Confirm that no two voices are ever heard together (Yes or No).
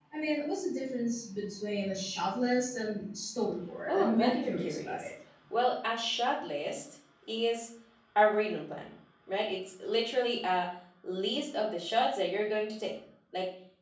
No